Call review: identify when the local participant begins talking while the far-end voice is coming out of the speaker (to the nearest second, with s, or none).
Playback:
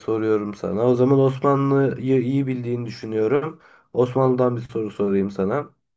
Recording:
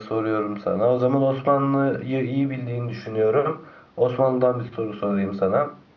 none